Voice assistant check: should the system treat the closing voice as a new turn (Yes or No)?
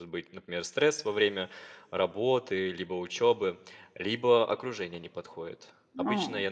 No